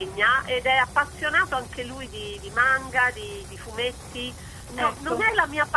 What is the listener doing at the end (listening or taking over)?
listening